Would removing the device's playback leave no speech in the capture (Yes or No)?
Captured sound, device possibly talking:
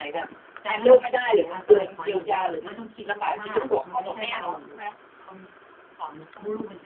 No